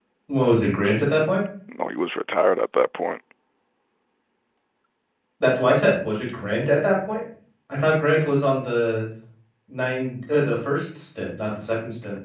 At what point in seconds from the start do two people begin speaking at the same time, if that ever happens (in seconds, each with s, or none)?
none